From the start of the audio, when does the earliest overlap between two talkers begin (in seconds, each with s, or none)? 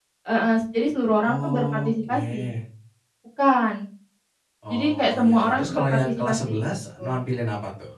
1.2 s